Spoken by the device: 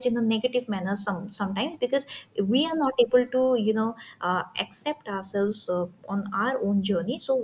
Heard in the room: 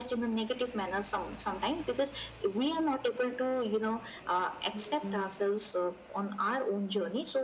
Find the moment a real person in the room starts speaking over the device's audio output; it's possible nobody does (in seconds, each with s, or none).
4.7 s